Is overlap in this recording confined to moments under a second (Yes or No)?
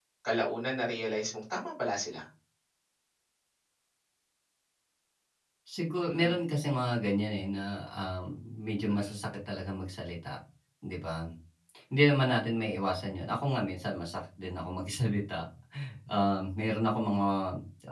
Yes